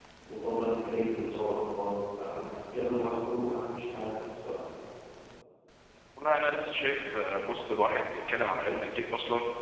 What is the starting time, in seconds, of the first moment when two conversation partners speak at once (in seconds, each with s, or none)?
none